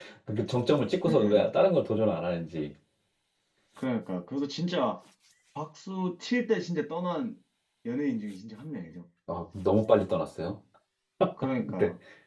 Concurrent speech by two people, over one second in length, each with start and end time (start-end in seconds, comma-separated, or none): none